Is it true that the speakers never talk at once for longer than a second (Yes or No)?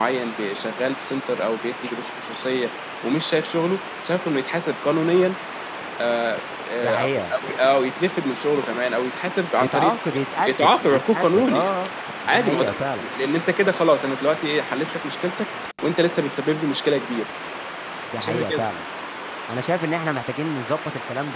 No